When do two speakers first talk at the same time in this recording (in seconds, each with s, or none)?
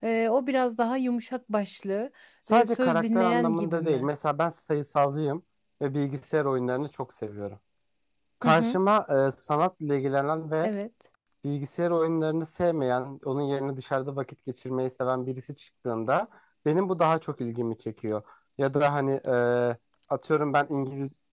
2.5 s